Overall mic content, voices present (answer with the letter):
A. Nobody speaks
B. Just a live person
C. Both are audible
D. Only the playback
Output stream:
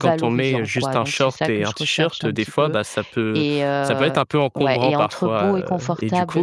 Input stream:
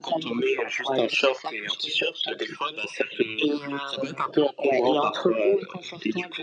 D